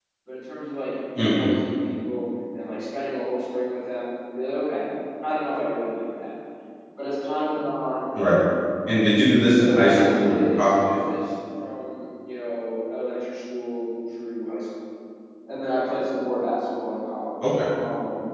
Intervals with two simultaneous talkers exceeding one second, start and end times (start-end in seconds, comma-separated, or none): 9.6-10.8